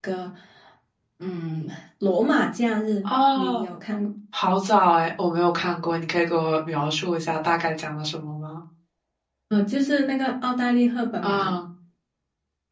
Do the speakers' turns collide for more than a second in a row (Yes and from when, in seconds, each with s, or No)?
No